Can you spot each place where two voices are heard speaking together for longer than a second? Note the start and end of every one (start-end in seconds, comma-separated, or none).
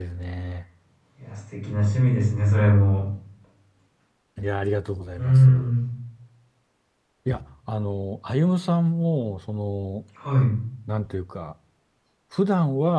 none